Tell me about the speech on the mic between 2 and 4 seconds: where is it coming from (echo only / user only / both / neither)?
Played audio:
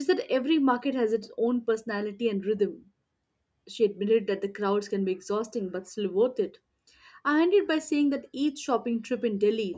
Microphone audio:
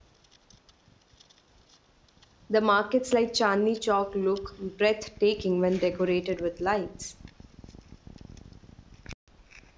user only